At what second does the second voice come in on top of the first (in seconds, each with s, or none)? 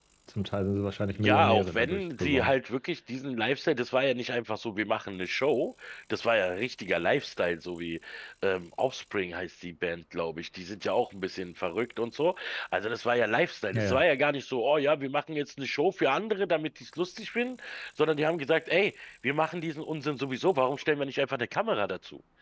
1.2 s